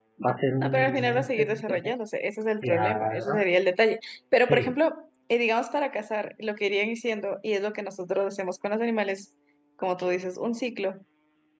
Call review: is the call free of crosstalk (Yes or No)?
No